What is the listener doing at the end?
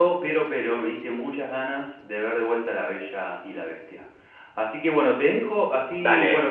listening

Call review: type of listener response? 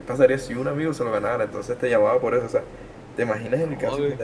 listening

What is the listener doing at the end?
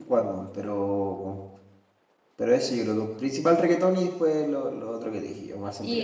taking over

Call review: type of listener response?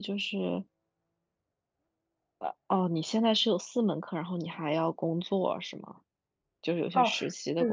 taking over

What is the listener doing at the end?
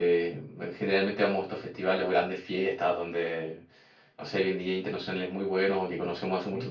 listening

